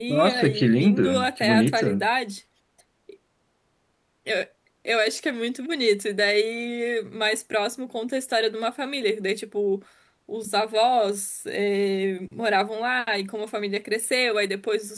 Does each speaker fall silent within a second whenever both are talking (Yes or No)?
No